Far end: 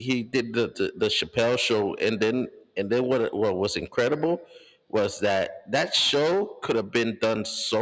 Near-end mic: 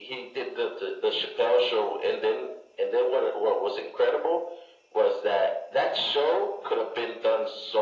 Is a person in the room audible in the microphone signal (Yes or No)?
No